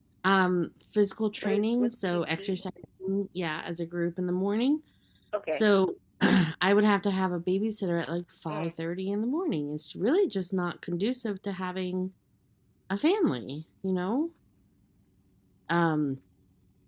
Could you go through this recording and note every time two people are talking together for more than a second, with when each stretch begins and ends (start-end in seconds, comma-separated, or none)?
1.4-2.7